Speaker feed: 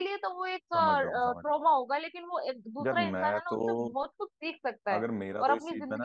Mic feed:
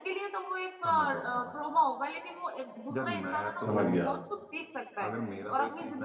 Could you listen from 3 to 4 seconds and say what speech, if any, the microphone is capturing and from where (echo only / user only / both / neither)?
both